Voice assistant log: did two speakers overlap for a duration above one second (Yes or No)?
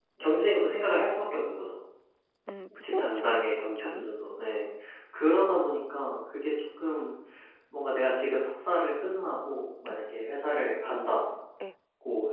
Yes